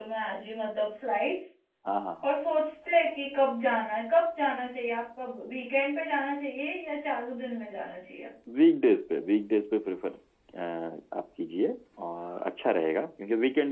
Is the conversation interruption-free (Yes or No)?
Yes